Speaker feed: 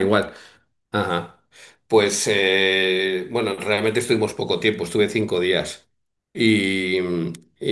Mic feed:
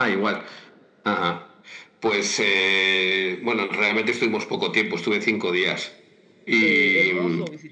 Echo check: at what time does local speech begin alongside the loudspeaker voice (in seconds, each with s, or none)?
6.6 s